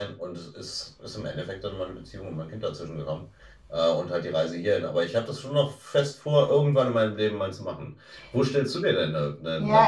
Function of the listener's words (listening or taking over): taking over